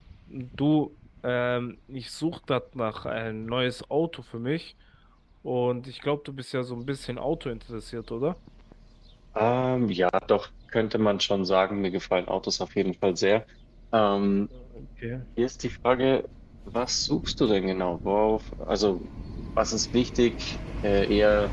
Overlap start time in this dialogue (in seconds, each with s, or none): none